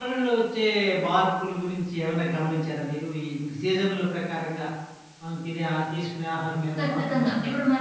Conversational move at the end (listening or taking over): taking over